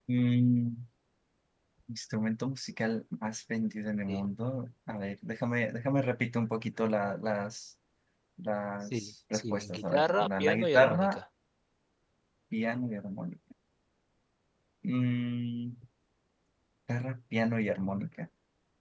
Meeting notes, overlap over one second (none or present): present